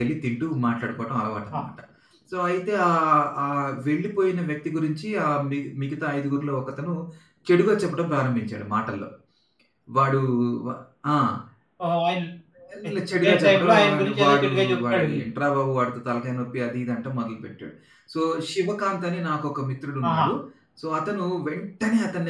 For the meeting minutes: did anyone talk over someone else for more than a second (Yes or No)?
Yes